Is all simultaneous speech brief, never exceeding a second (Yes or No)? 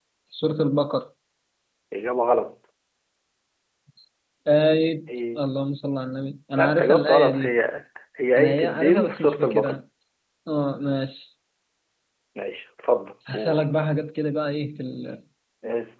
No